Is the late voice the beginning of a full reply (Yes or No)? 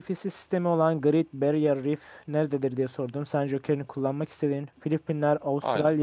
No